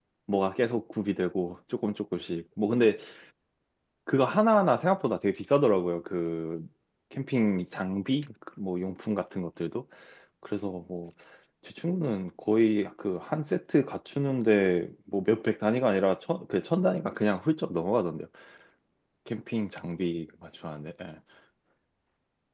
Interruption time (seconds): none

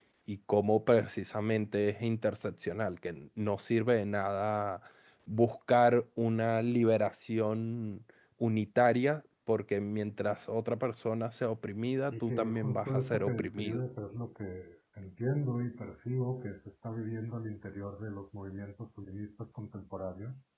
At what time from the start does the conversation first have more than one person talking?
12.1 s

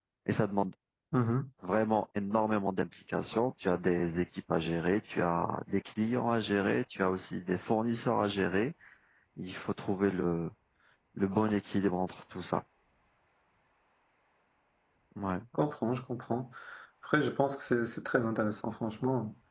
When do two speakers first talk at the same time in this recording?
none

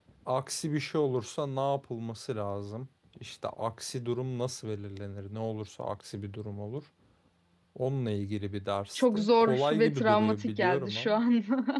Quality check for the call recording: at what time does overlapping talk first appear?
8.9 s

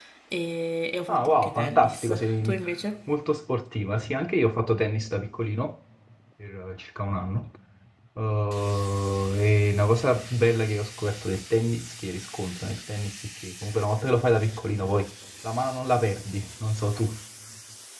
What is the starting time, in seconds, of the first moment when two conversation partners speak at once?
1.1 s

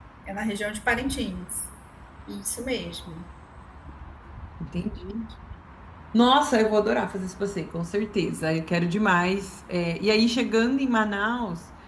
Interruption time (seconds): none

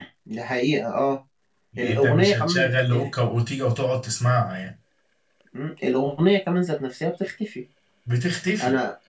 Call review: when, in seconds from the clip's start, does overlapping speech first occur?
1.8 s

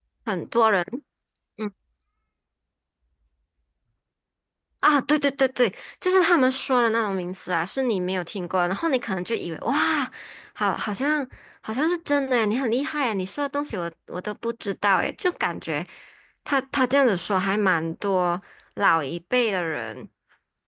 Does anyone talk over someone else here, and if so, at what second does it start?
none

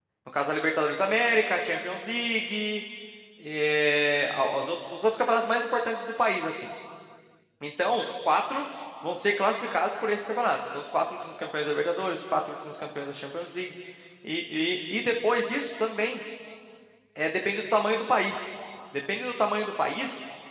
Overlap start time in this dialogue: none

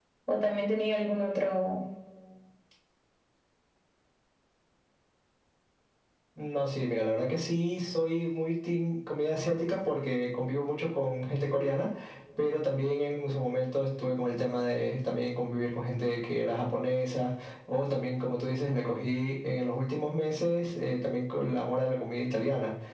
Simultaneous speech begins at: none

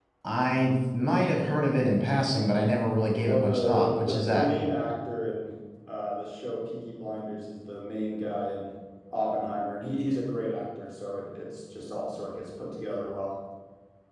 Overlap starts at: 3.2 s

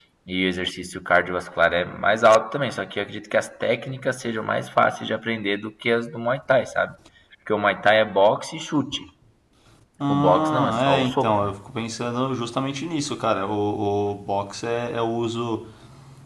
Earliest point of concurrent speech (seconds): 10.1 s

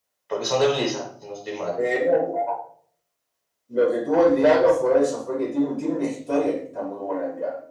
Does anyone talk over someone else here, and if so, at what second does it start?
none

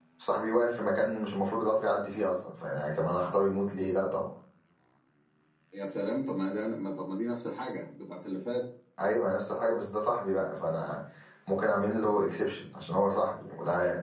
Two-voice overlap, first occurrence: none

